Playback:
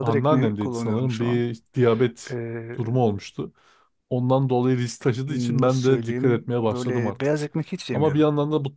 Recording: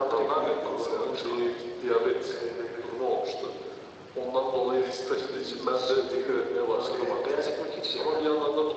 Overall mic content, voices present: echo only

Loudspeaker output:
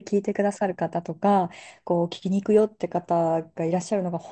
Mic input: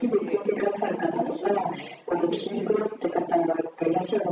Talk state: both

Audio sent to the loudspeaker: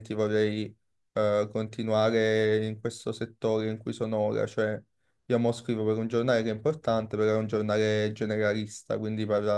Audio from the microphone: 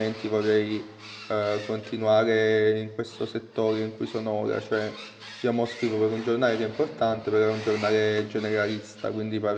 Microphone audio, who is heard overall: echo only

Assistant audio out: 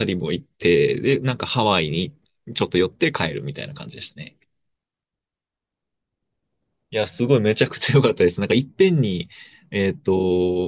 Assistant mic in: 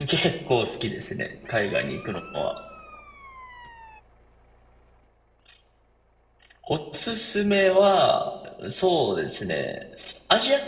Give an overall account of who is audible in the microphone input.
user only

